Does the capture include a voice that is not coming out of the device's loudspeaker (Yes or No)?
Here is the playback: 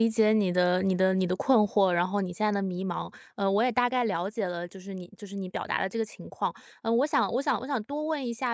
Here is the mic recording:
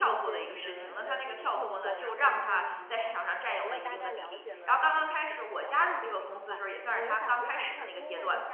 Yes